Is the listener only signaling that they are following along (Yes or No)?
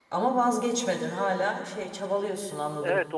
No